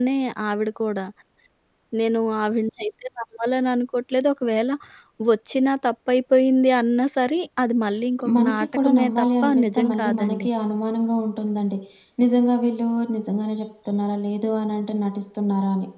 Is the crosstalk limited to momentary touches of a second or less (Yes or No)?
No